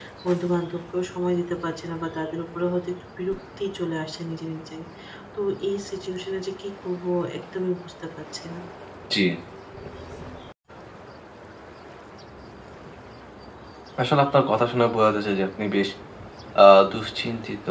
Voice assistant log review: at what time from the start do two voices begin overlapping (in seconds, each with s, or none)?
none